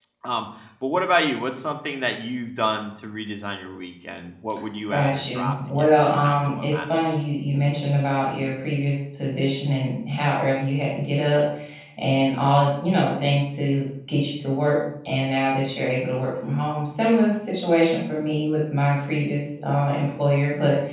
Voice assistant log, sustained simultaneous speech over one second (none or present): present